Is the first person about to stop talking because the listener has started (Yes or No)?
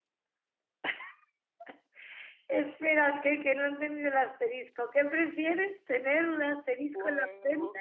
Yes